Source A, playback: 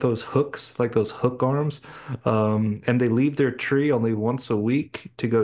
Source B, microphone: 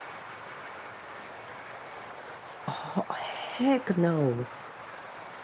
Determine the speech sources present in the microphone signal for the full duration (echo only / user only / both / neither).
user only